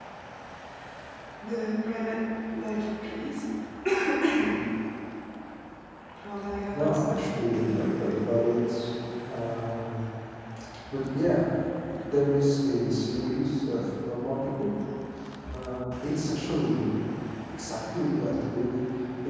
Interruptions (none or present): present